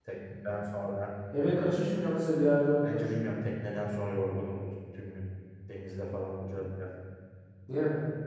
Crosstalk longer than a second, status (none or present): none